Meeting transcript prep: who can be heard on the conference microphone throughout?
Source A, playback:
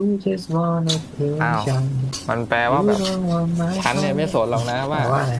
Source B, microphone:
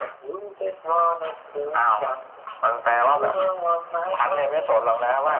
echo only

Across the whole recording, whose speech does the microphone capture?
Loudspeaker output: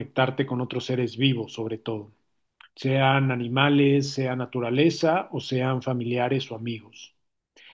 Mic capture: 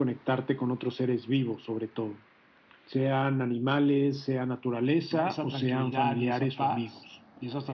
both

